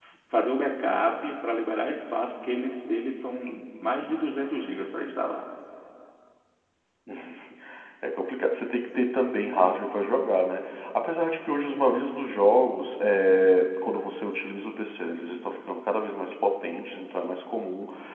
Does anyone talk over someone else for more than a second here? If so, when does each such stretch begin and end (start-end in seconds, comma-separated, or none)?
none